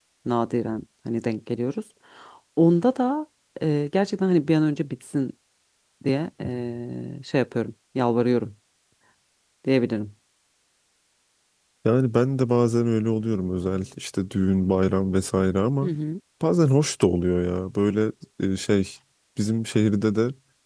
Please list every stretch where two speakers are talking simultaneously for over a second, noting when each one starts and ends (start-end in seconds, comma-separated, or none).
none